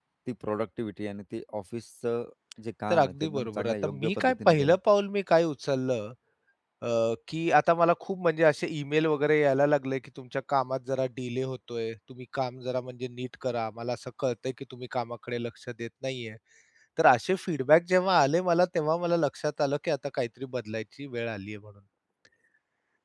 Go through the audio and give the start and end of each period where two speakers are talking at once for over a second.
2.9-4.7

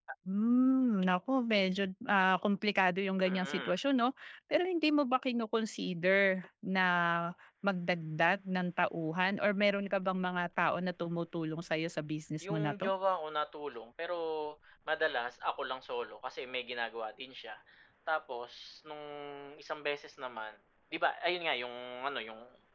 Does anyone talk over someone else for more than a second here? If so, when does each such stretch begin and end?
none

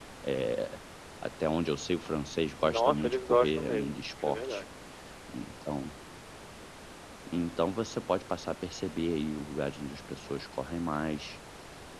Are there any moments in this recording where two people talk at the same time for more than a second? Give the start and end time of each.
2.6-4.6

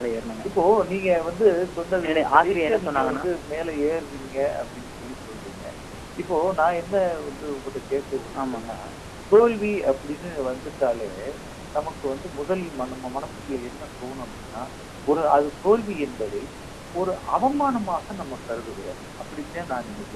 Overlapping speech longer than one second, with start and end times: 2.0-3.2

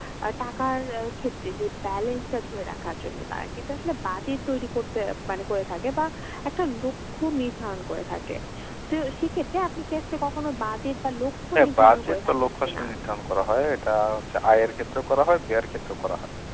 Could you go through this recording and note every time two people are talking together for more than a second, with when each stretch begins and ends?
11.6-12.8

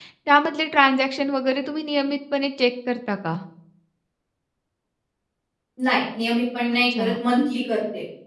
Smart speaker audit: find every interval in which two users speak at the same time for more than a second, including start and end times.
none

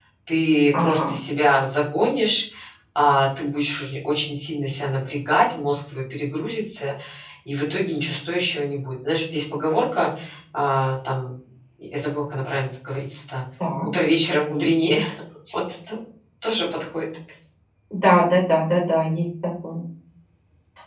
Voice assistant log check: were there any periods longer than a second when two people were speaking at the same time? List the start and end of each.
none

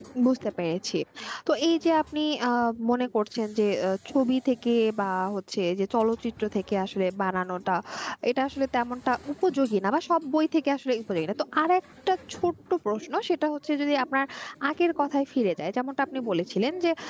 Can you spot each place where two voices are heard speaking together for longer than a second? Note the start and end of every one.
none

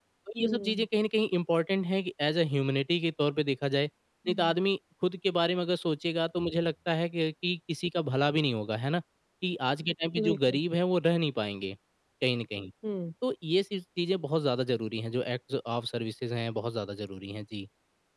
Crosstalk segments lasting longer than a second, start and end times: none

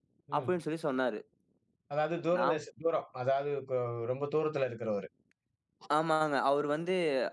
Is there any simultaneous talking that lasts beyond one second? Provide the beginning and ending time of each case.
none

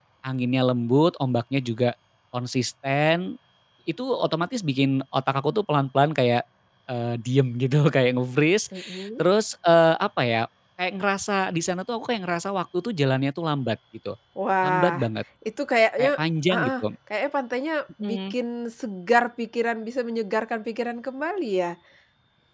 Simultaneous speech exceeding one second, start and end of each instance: none

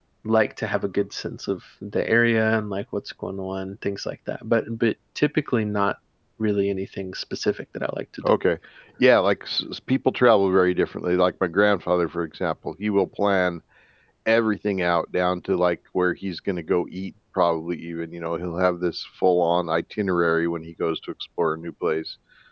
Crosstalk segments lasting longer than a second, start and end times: none

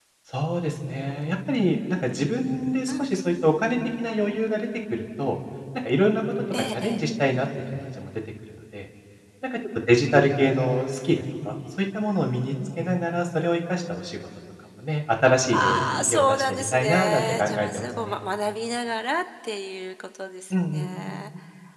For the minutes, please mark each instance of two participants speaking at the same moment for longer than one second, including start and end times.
15.5-18.2

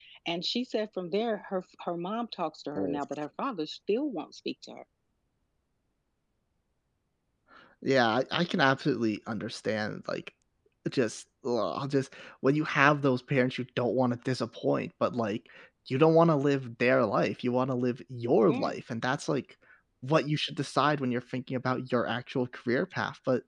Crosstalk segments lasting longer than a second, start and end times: none

